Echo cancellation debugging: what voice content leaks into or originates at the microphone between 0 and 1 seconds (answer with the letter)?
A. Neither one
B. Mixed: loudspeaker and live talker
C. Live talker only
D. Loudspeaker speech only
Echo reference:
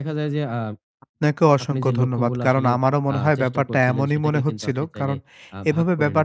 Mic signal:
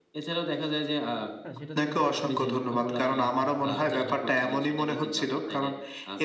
D